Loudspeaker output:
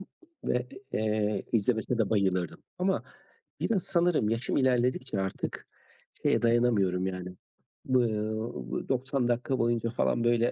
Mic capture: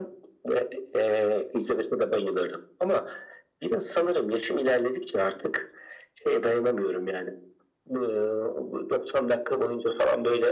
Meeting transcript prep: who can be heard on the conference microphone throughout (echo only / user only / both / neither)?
echo only